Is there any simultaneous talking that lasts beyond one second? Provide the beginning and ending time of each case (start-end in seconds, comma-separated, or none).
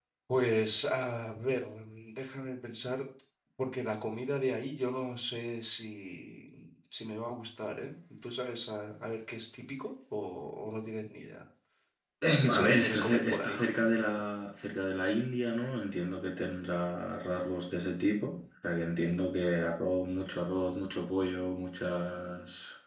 12.4-13.6